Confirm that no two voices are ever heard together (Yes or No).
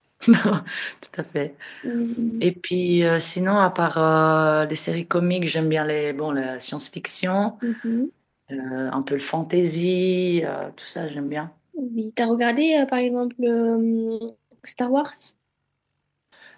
Yes